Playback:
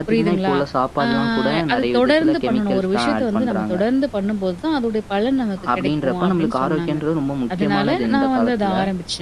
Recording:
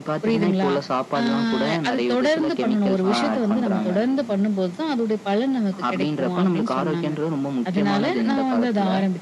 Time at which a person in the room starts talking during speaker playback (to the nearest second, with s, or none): 3 s